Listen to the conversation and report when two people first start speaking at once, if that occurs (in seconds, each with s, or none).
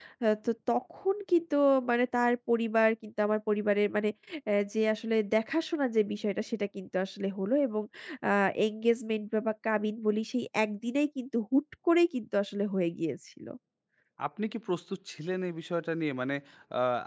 none